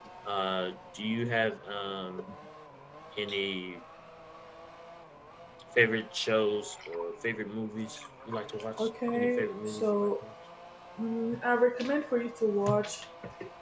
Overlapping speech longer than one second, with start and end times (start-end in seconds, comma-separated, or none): 8.8-10.1